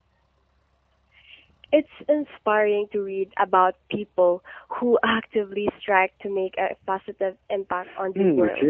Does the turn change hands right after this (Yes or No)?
Yes